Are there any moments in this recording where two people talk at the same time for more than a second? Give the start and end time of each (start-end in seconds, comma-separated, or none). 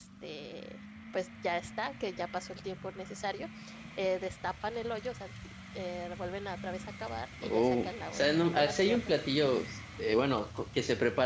7.4-9.2